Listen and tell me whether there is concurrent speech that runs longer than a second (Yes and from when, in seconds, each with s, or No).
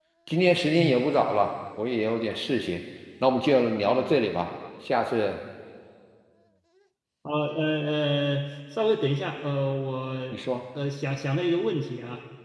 No